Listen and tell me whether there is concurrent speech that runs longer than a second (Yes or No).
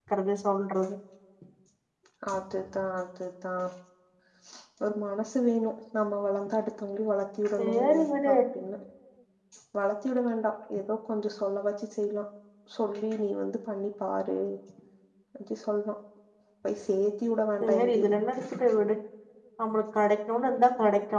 No